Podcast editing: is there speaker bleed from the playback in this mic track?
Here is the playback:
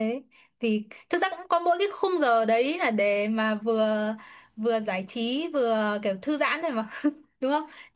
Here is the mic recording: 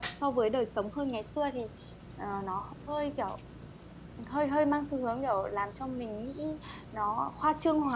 No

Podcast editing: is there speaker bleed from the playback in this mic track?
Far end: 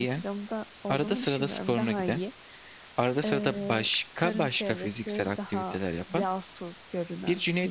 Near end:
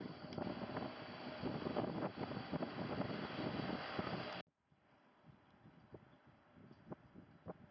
No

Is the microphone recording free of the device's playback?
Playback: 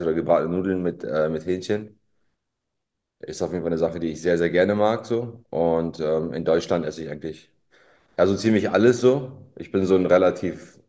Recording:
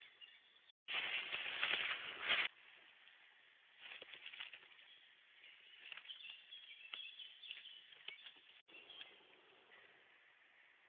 Yes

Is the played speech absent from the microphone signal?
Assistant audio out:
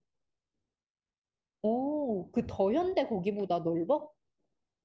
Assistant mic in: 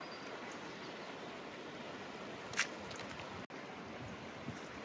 Yes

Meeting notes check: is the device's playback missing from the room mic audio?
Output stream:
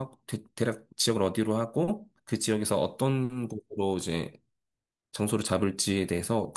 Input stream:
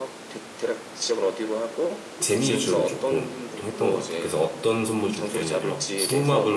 No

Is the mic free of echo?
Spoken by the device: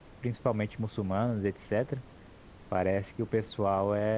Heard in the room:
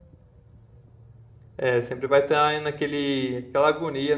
Yes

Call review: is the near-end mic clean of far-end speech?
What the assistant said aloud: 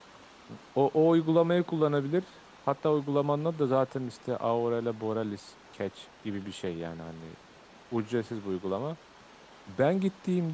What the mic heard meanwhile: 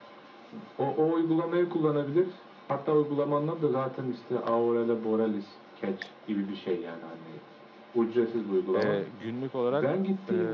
No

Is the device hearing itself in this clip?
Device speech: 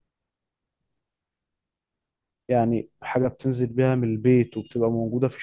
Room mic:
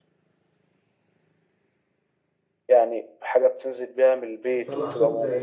Yes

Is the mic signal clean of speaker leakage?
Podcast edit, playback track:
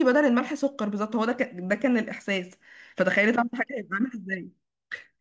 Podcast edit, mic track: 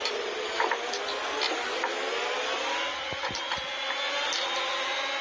Yes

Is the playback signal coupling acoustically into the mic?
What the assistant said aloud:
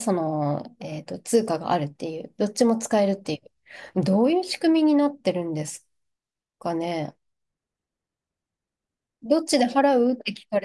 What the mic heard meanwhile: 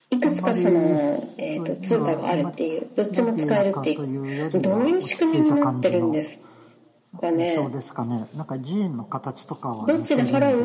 Yes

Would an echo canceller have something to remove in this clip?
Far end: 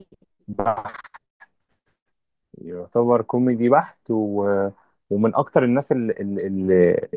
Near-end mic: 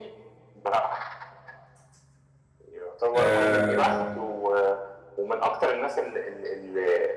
Yes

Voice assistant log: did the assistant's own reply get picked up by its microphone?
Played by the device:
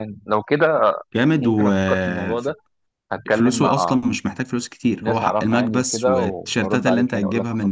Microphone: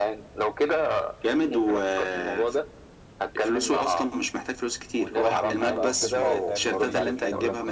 Yes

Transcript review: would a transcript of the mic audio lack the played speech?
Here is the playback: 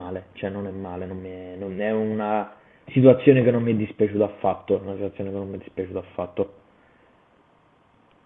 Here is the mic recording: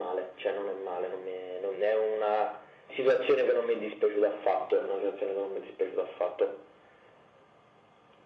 No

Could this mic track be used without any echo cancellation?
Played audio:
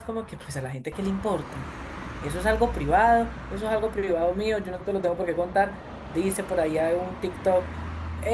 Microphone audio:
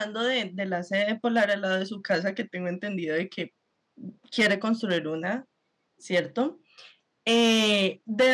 Yes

